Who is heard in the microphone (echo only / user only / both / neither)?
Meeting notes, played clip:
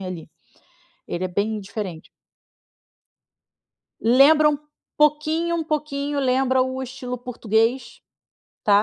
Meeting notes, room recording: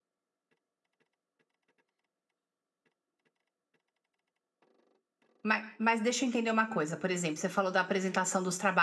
user only